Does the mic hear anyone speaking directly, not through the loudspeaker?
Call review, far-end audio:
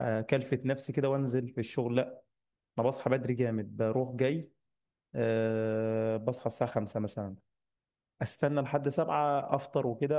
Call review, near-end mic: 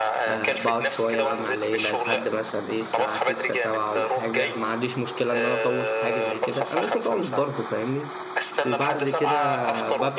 Yes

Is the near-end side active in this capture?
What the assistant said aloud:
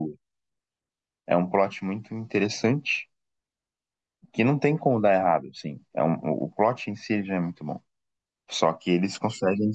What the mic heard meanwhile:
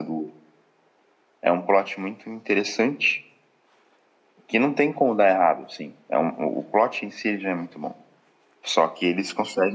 No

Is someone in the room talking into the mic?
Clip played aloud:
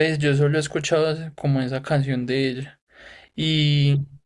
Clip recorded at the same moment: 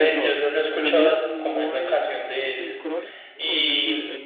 Yes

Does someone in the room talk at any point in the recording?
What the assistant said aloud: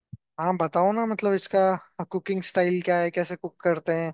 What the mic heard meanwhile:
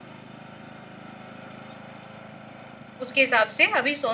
Yes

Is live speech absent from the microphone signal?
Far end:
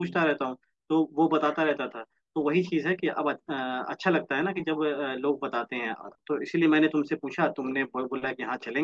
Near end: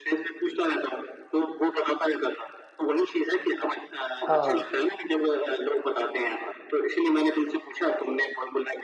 No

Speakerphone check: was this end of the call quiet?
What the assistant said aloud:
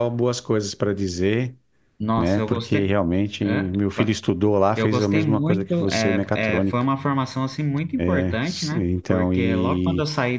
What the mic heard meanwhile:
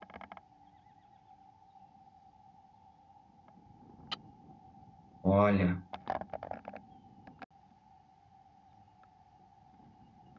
No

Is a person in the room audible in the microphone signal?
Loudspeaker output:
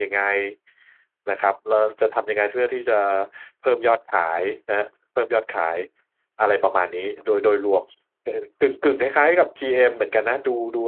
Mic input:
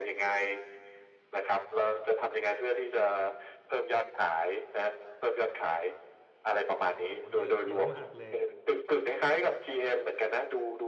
Yes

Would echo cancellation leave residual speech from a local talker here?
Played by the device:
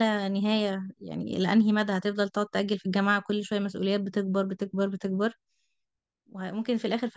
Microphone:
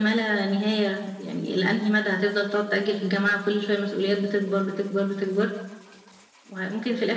No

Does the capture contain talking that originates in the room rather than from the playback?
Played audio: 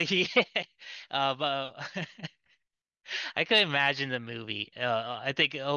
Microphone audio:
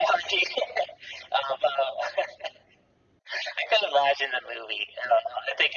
No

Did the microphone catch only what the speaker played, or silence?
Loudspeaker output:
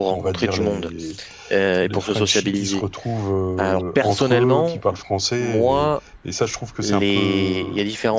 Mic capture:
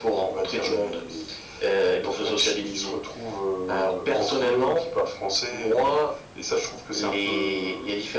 Yes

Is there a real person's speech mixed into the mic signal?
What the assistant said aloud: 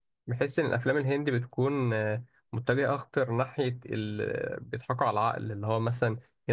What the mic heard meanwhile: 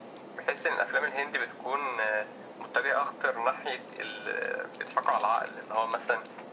No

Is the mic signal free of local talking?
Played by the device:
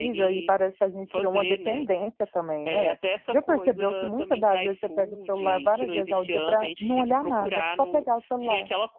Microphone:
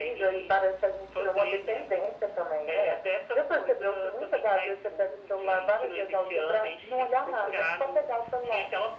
Yes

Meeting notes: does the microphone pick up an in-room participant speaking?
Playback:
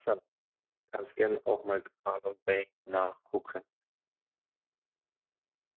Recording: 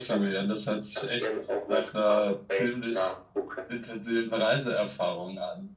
Yes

